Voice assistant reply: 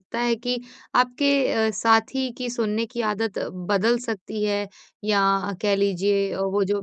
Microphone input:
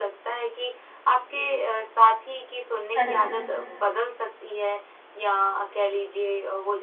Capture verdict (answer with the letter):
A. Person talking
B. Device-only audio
A